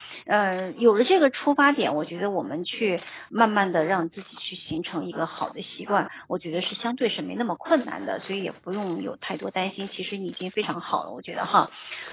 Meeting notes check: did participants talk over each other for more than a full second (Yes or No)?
No